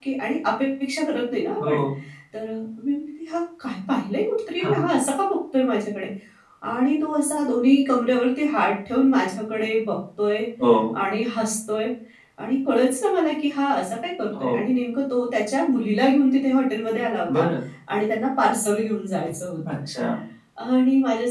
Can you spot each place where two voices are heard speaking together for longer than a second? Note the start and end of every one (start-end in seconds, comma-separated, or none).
none